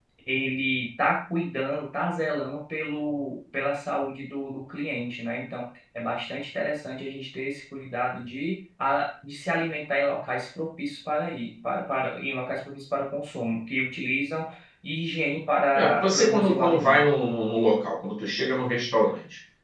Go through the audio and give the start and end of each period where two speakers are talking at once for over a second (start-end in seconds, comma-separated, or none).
15.7-17.0